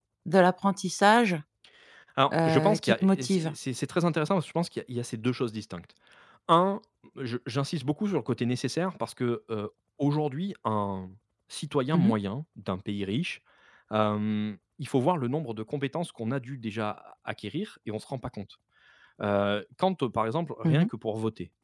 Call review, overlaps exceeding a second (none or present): present